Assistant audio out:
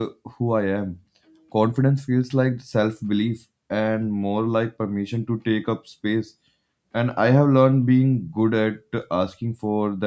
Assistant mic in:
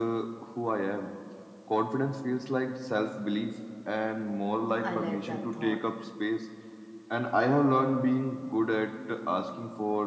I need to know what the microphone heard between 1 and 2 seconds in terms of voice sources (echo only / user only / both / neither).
echo only